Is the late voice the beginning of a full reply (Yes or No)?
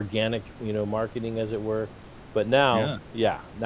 No